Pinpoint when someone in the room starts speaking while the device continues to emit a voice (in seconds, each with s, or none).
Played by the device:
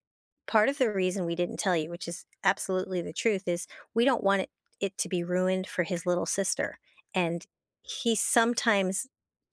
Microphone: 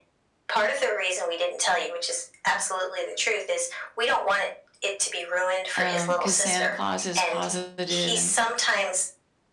5.8 s